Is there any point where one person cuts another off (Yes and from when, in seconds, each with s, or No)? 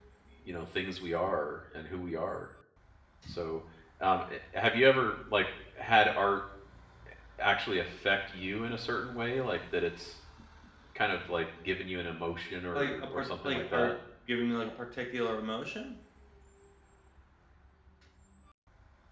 Yes, from 12.7 s